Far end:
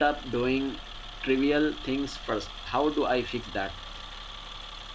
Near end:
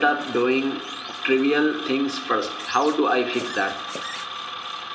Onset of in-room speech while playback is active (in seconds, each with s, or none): none